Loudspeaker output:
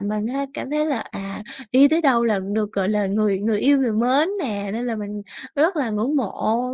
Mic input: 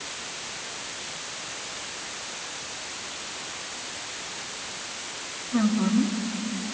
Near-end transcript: Ừm hứm,

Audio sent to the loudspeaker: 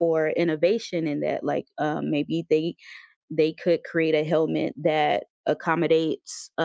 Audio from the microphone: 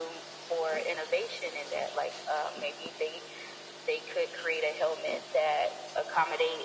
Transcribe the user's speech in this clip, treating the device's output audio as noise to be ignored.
none

